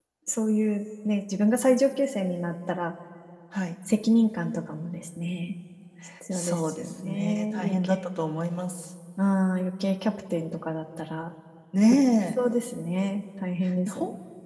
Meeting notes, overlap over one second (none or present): present